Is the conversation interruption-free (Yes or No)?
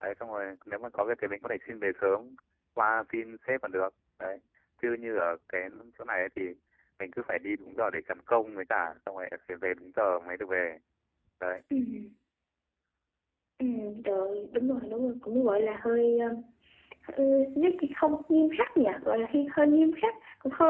Yes